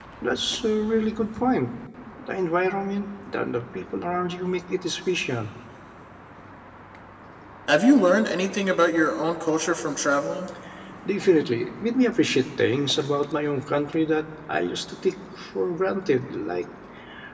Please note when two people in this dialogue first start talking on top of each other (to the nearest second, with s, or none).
none